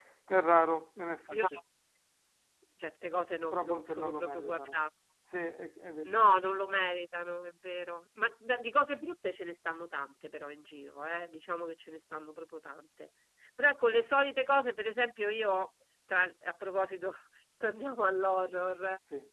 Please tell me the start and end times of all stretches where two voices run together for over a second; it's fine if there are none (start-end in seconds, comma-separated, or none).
3.5-4.8